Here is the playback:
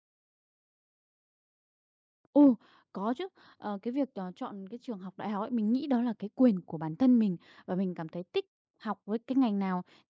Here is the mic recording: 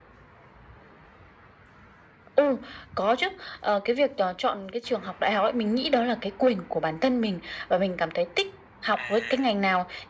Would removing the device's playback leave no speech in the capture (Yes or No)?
No